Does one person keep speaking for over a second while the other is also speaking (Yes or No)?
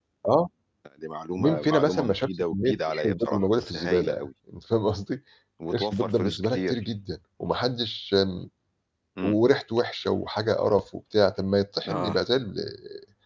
Yes